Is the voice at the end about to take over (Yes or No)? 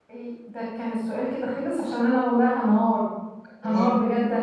No